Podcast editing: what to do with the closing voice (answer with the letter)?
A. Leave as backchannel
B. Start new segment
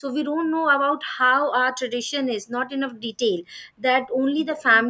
A